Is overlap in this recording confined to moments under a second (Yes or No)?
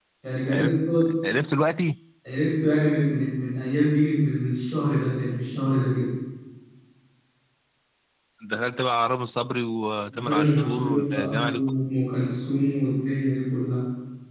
No